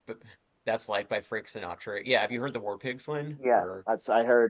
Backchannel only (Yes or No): No